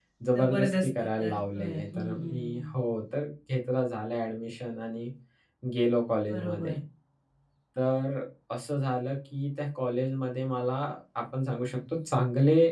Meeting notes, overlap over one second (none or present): present